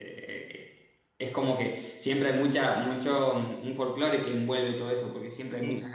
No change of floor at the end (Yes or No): Yes